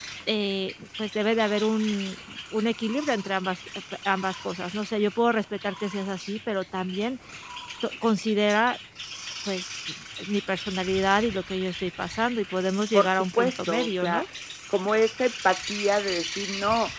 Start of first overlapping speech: 12.9 s

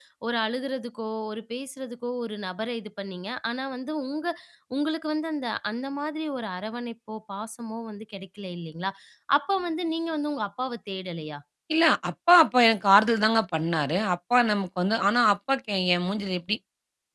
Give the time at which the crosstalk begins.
none

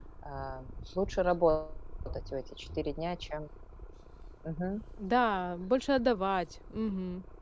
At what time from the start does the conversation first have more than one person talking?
none

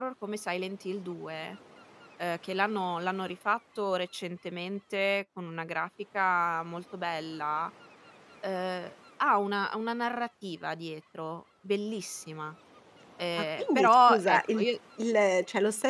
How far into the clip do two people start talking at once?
13.4 s

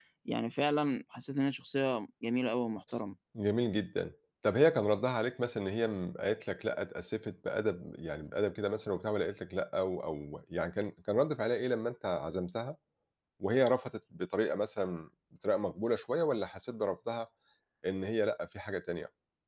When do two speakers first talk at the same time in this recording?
none

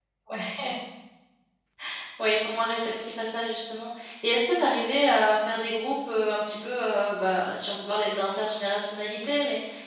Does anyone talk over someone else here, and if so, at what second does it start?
none

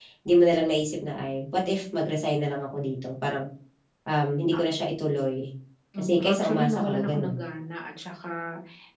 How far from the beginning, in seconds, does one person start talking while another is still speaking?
6.0 s

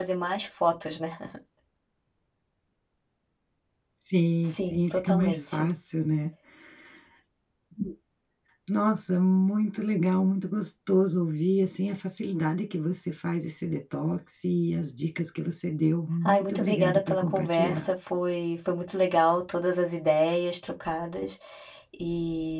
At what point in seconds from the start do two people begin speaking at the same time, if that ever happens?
4.5 s

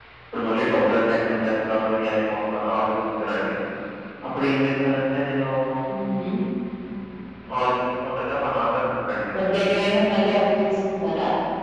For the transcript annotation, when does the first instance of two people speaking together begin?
none

